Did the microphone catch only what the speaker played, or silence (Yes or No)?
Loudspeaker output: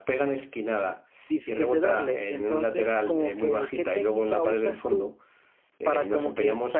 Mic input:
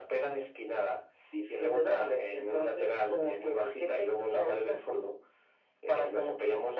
Yes